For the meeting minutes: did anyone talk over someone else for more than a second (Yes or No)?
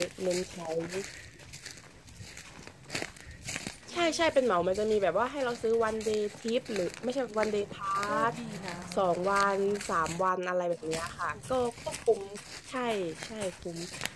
No